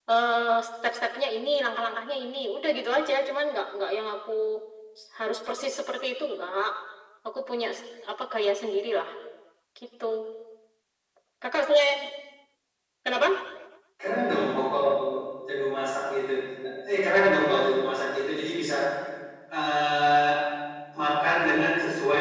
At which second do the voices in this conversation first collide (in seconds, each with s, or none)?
none